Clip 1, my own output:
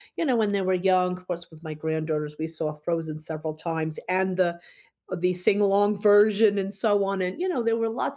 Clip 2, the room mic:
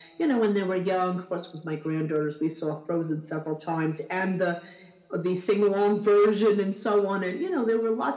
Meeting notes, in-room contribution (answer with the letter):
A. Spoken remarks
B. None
B